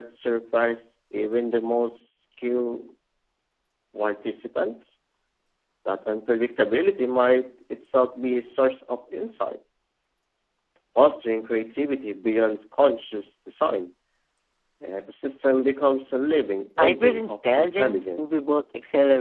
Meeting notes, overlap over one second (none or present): present